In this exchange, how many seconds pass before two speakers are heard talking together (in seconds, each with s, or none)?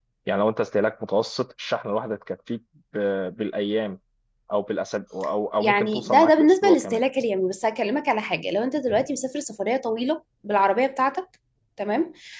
5.6 s